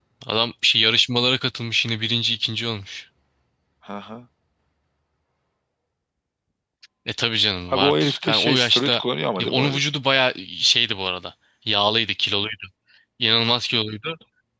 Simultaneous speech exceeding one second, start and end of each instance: 7.7-9.0

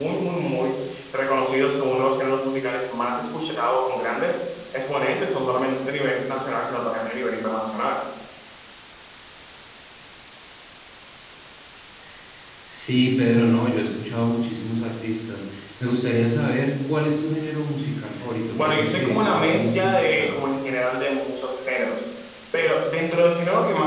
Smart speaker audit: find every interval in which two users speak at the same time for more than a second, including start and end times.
18.5-20.3

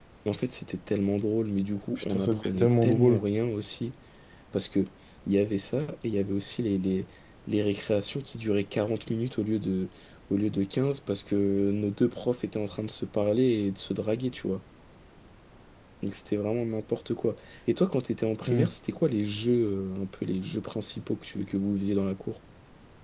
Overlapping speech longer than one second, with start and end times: 2.0-3.2

